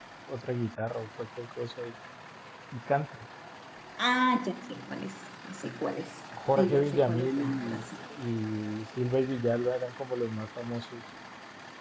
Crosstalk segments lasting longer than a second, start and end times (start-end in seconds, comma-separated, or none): 6.6-7.8